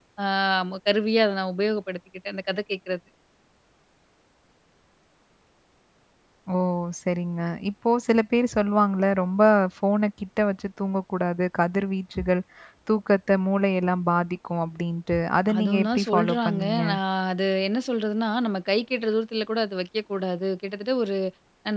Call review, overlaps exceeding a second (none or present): present